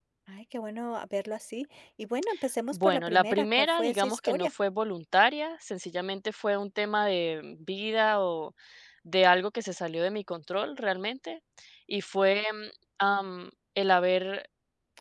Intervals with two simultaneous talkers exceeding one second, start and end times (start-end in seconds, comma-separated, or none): 2.7-4.5